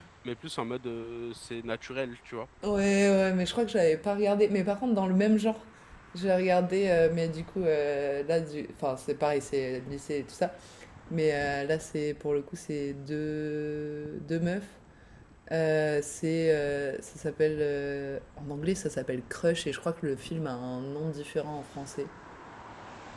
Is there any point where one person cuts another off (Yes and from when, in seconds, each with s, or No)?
No